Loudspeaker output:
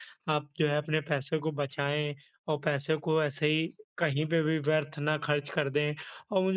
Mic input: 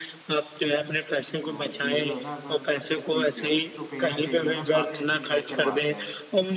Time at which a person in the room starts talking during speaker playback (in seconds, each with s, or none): 1.5 s